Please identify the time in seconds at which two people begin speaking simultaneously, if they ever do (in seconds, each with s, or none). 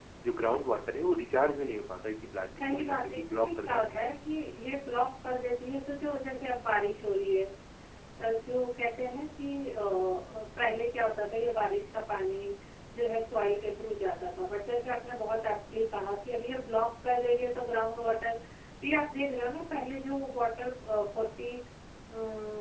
2.6 s